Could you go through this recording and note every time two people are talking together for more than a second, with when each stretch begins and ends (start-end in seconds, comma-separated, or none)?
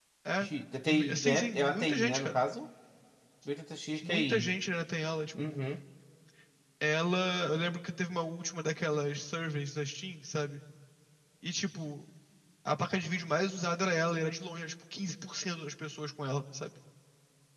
0.9-2.4